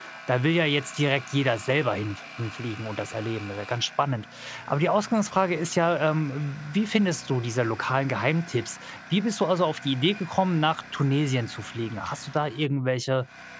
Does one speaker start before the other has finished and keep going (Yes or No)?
No